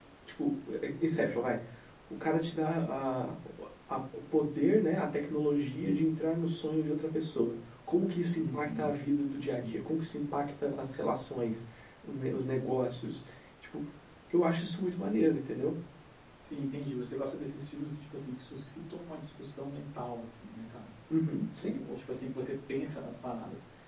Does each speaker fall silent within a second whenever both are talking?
Yes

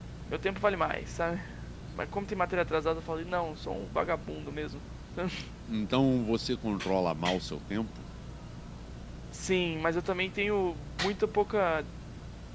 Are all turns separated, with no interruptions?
Yes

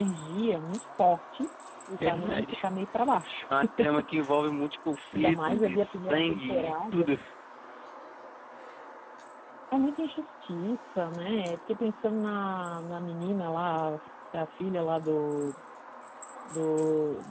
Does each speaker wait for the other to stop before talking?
No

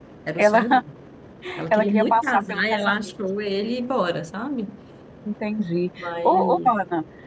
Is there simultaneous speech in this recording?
Yes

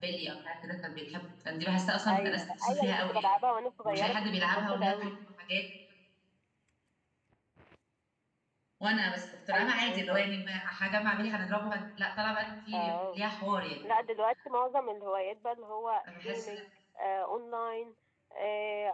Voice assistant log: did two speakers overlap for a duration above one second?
Yes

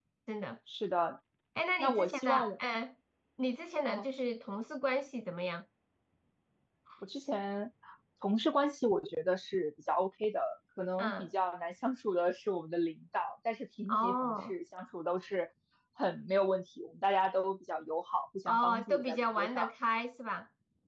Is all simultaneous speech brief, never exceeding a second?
No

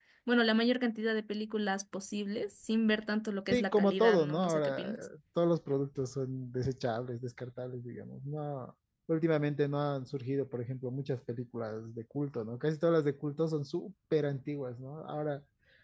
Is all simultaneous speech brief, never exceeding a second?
No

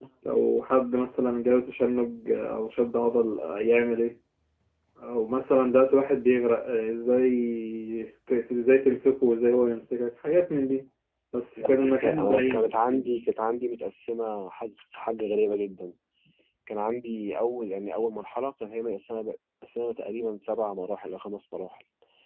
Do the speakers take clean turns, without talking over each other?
No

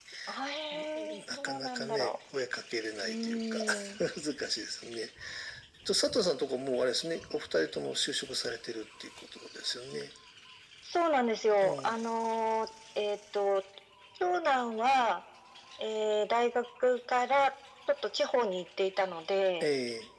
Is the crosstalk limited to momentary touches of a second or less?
No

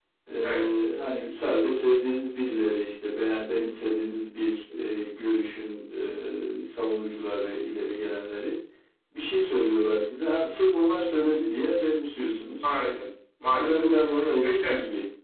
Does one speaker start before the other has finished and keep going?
Yes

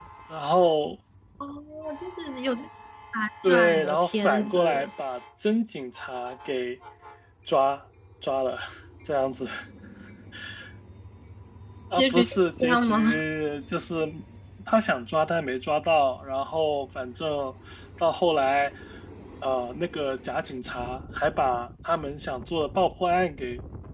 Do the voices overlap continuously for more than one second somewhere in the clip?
Yes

